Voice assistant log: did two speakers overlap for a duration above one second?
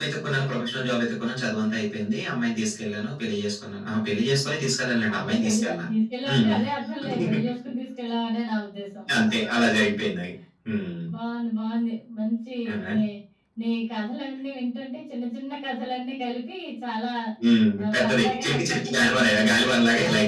Yes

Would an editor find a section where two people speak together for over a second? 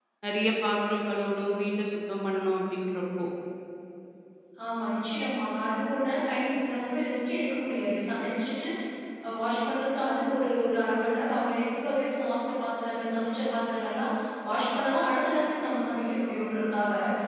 No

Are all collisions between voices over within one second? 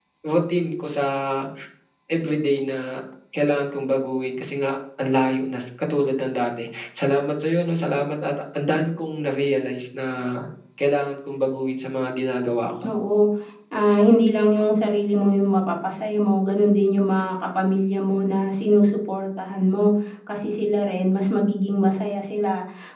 Yes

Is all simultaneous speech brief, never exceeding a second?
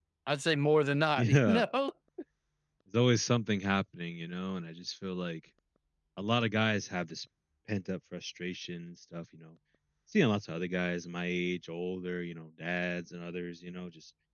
Yes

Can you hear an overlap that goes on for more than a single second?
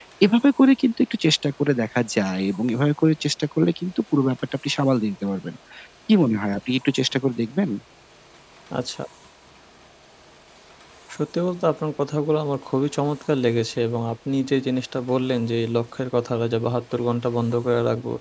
No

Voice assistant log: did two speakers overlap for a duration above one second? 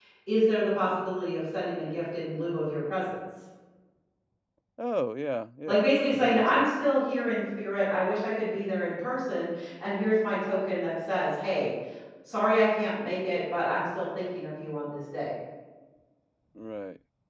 Yes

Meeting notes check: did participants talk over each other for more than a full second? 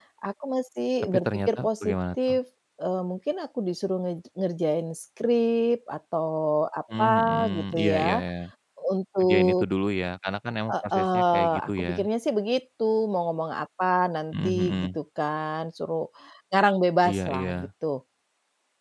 Yes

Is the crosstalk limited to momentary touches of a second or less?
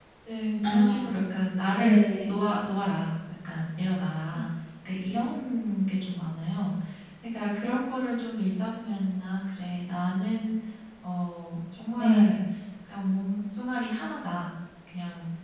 Yes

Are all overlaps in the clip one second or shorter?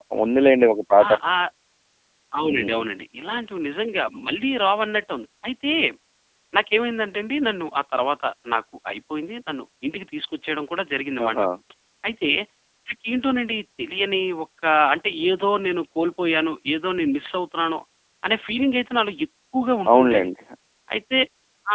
Yes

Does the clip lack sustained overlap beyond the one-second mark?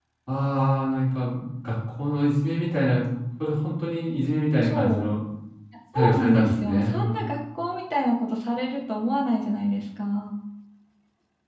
No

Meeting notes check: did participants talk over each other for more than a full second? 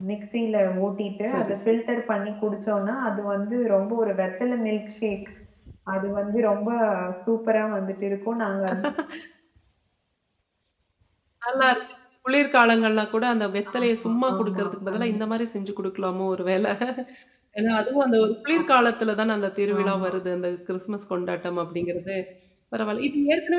Yes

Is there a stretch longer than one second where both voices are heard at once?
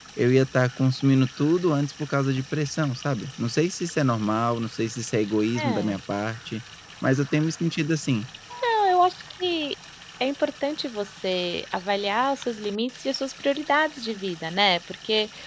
No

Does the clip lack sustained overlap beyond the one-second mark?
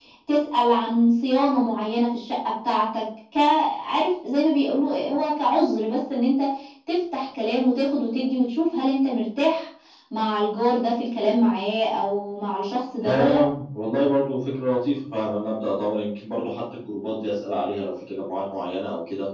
Yes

